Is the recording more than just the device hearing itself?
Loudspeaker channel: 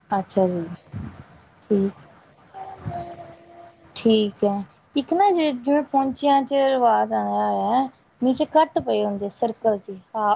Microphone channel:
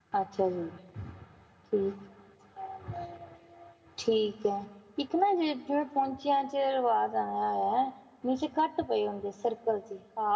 No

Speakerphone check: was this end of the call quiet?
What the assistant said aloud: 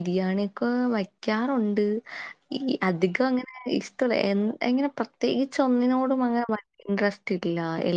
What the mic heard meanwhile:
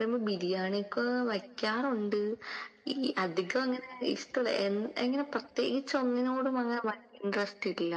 Yes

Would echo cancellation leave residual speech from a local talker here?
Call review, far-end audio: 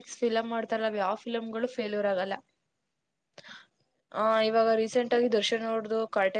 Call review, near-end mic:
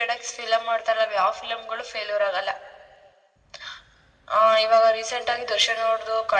No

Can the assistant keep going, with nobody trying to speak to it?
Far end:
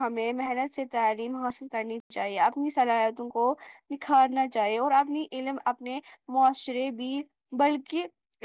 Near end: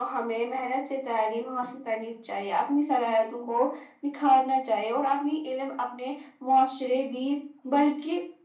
Yes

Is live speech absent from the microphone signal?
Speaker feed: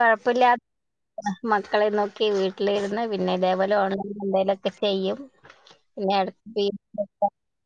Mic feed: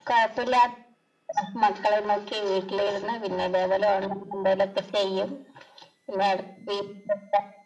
Yes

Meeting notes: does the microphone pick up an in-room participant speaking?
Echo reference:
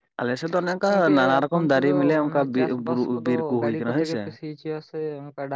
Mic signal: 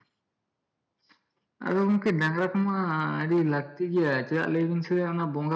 Yes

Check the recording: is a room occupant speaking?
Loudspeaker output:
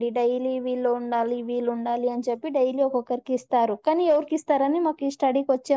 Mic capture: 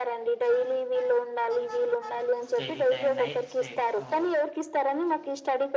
Yes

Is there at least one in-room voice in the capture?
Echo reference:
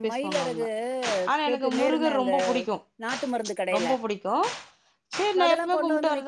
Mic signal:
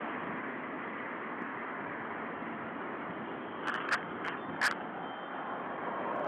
No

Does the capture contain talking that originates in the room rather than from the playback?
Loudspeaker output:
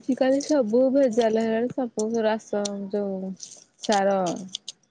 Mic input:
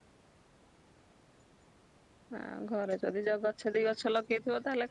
Yes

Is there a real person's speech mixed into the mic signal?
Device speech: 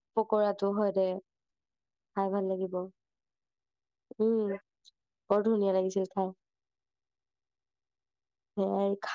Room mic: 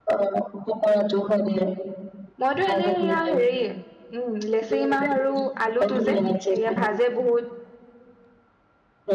Yes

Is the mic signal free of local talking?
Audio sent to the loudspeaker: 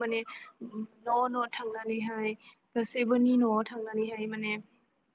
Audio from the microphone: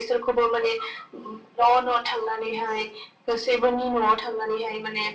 Yes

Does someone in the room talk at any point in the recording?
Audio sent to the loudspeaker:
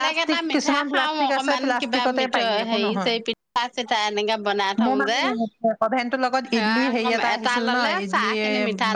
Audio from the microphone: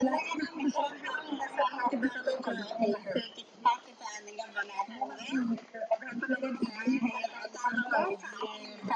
No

